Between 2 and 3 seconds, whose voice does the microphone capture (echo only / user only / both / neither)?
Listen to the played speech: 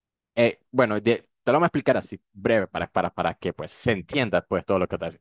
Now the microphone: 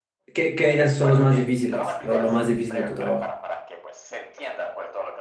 both